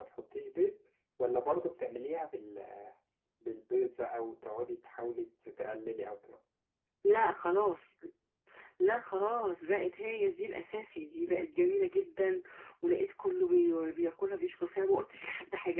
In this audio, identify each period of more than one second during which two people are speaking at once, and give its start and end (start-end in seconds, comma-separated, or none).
none